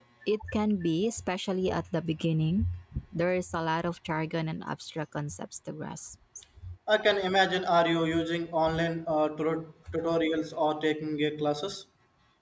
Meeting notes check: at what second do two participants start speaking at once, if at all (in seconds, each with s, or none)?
none